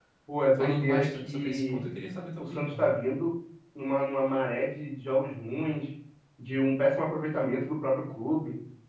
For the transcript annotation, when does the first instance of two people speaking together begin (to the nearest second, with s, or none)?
1 s